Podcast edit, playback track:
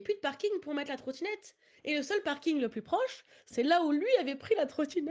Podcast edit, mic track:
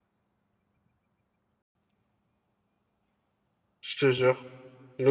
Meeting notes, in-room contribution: present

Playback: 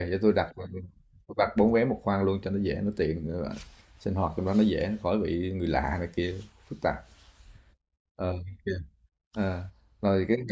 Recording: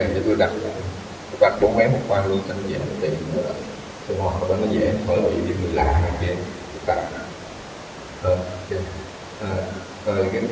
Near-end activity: none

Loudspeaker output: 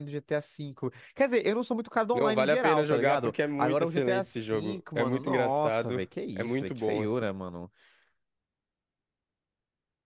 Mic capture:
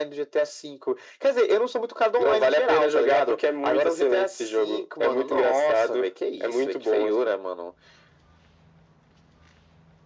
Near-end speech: none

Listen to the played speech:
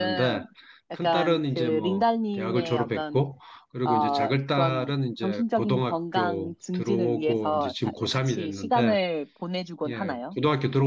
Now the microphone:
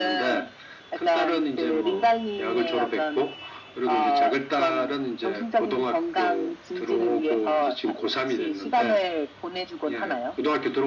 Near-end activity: none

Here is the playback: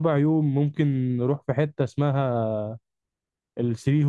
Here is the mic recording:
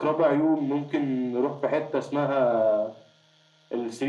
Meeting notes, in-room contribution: none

